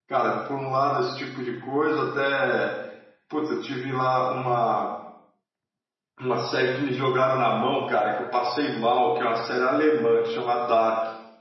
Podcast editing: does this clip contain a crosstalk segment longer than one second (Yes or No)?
No